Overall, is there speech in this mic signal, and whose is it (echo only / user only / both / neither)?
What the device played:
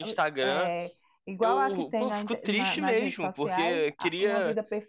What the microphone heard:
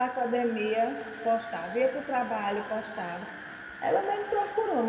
user only